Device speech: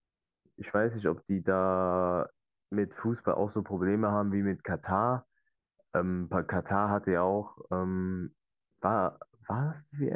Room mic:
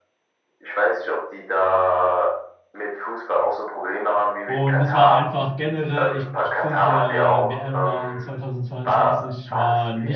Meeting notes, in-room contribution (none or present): present